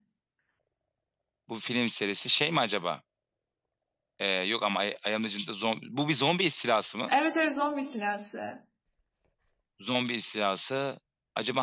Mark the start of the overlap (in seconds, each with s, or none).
none